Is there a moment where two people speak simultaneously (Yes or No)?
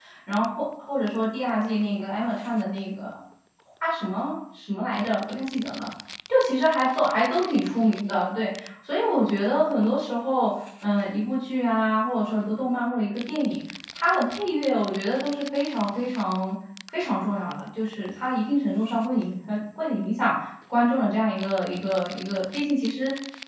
No